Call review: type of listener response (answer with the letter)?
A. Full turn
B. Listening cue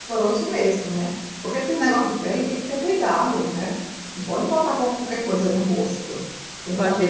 A